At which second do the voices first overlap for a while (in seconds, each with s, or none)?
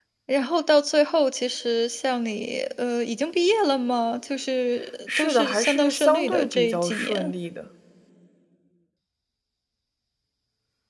5.1 s